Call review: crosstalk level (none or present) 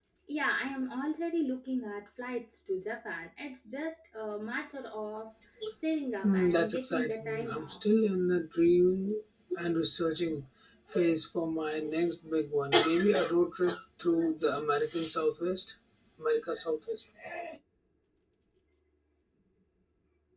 present